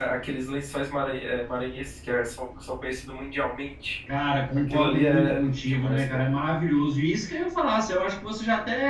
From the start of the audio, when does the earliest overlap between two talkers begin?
4.7 s

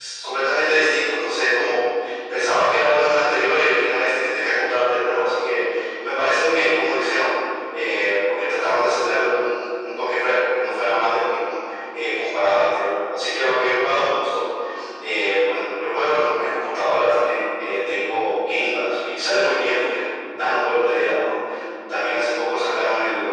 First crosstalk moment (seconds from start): none

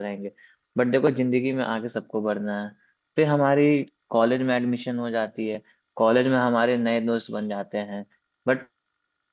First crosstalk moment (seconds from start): none

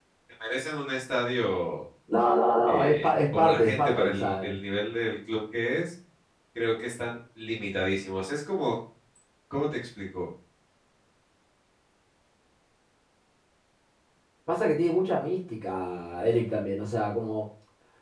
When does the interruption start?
2.7 s

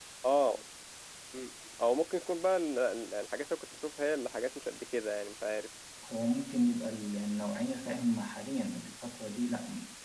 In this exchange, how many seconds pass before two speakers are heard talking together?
none

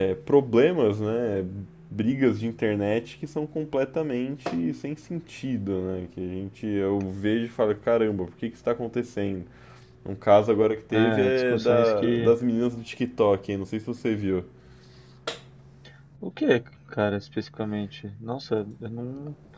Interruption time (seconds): 10.9 s

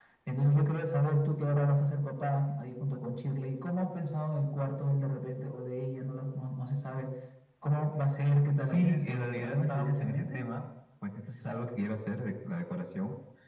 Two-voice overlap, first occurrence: 8.6 s

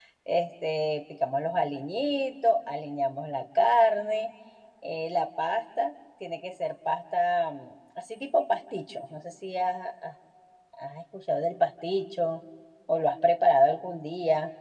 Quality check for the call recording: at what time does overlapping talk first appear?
none

